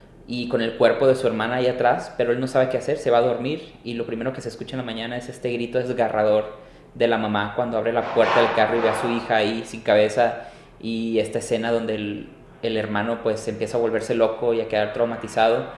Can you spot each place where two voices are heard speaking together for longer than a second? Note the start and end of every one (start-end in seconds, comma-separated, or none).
none